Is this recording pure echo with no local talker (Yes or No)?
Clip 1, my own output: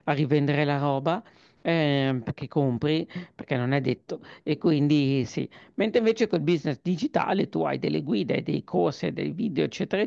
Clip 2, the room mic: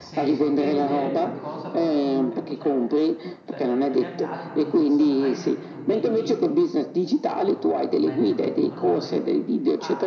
No